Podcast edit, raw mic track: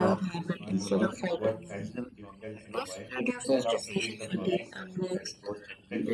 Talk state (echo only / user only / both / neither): both